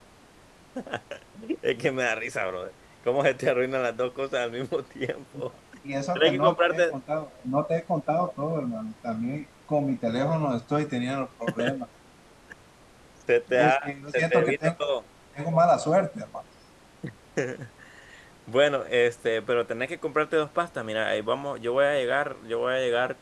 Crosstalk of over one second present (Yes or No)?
Yes